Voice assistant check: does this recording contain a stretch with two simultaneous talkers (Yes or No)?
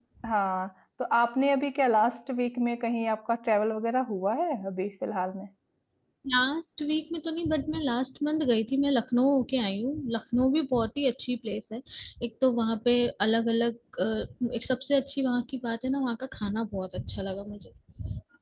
No